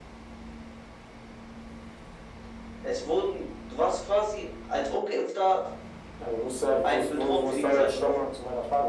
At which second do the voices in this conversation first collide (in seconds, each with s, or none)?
6.8 s